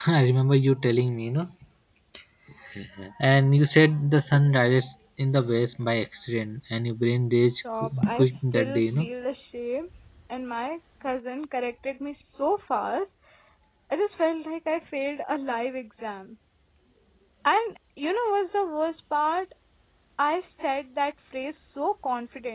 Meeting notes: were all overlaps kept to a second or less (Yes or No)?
No